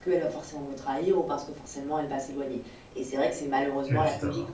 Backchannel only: Yes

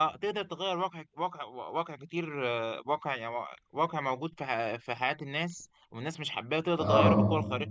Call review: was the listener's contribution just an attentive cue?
Yes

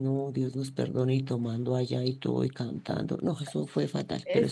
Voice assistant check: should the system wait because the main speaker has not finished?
No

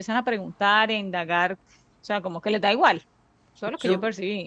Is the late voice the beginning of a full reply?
Yes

